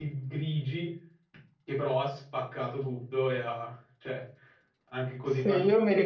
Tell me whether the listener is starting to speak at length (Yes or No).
Yes